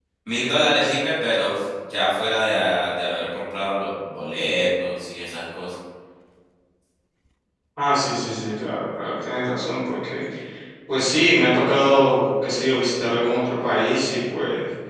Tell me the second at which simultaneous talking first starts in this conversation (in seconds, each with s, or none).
none